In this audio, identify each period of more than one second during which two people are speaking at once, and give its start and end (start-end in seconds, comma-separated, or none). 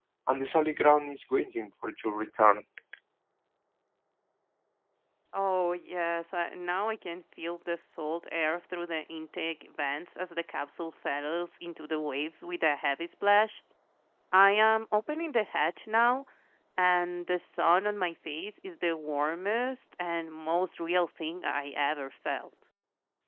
none